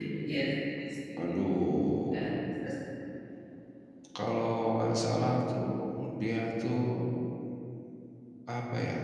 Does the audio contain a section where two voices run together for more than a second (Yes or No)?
No